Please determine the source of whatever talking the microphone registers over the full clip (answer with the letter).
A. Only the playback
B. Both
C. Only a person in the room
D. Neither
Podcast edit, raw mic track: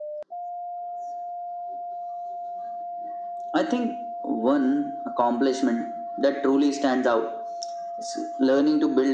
A